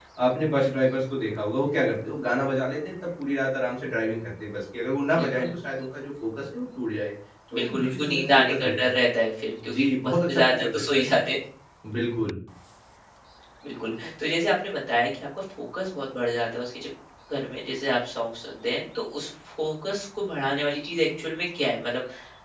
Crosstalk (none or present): present